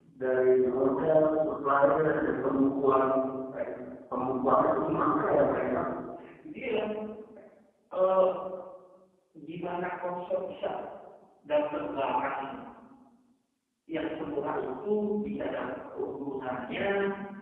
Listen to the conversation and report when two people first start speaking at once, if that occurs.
none

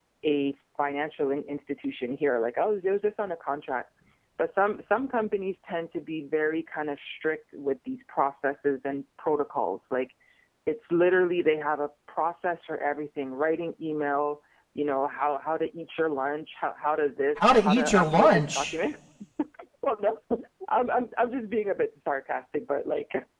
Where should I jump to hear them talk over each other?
17.4 s

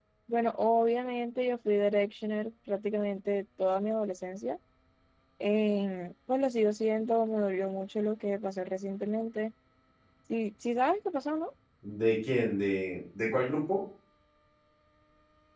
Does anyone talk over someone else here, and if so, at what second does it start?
none

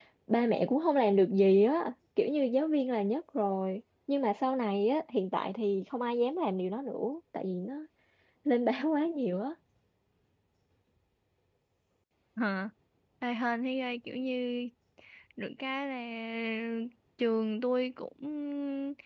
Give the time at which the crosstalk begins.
none

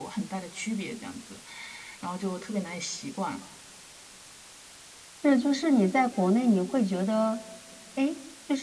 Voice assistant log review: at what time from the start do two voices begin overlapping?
none

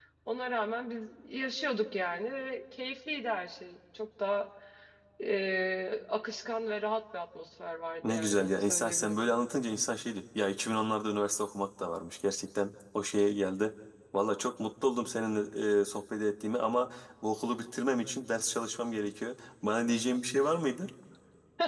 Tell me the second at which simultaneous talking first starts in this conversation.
8.0 s

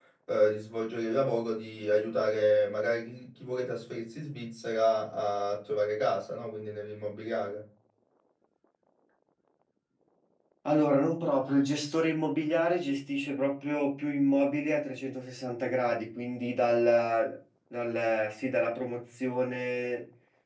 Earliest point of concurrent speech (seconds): none

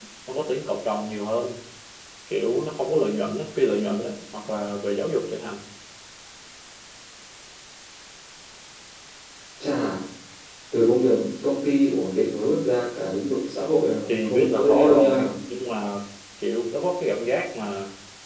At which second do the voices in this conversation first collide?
14.1 s

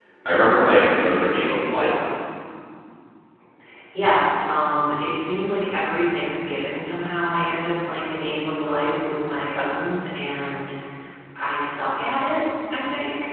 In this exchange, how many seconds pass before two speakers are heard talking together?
none

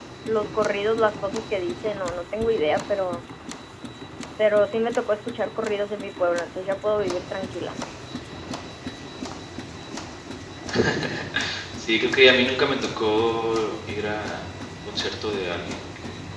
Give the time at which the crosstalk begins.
none

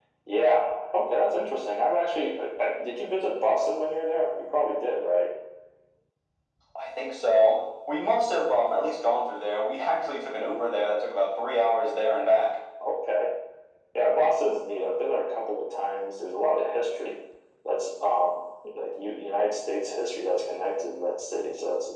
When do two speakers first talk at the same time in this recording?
none

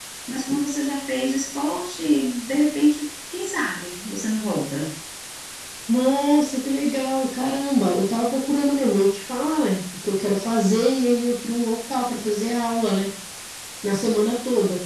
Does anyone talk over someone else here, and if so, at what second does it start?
none

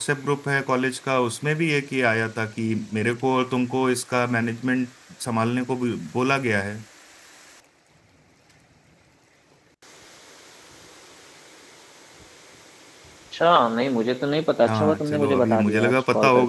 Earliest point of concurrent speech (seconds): 14.6 s

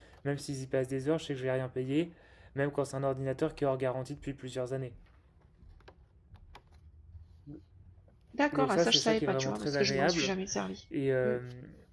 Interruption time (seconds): 8.5 s

